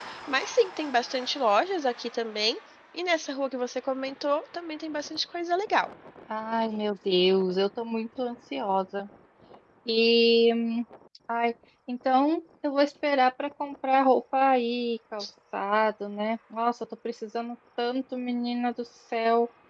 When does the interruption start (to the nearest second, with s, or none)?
none